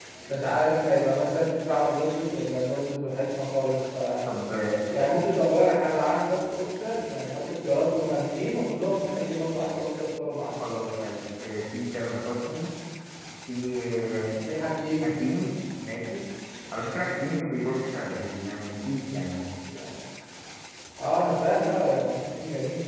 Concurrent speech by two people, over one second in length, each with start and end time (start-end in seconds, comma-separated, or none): none